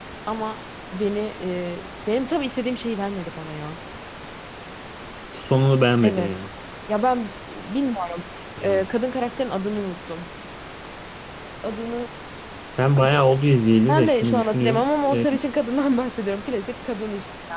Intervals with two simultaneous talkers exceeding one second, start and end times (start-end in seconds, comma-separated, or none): 13.9-15.2